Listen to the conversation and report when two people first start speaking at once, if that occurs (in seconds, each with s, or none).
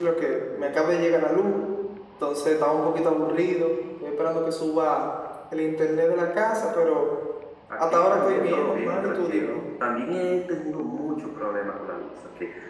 7.9 s